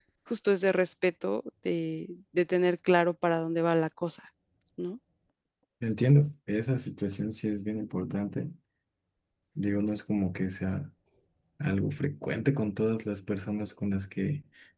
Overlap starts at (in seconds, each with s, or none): none